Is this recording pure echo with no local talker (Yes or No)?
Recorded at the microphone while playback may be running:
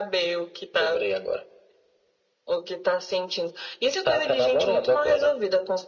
Yes